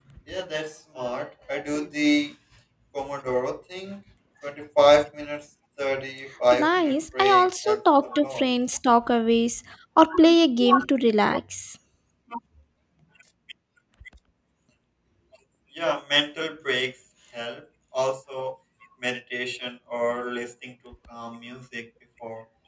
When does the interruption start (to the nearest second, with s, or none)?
7 s